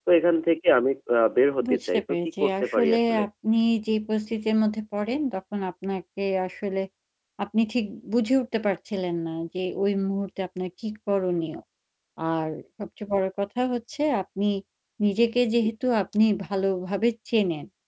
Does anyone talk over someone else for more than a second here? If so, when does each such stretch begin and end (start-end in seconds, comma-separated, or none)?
1.7-3.2